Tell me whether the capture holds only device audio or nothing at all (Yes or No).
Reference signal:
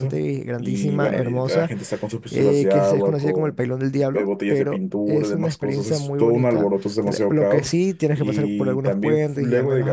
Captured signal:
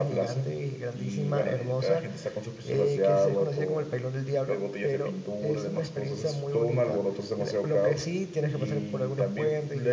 Yes